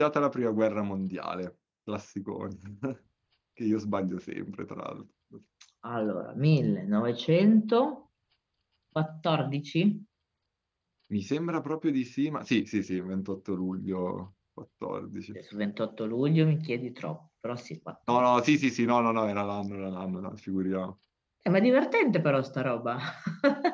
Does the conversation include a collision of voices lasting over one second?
No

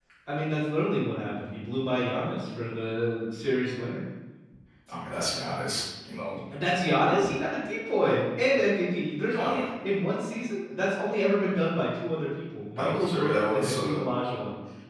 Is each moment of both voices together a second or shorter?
No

